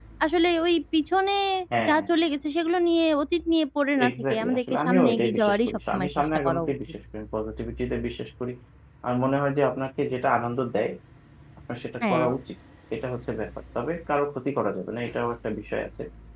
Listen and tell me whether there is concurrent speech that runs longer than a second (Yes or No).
Yes